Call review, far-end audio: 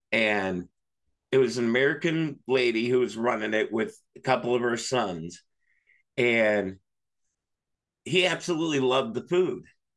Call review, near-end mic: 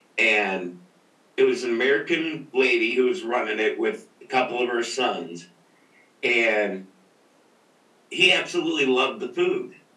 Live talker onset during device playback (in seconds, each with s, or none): none